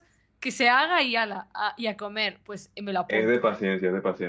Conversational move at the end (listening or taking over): taking over